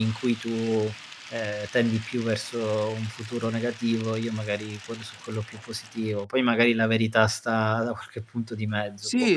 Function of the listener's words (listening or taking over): taking over